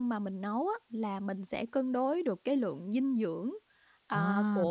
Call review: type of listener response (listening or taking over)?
listening